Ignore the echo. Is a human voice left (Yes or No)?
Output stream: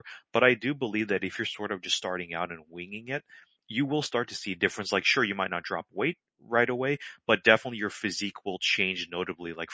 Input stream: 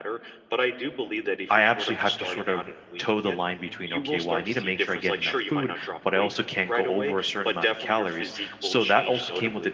Yes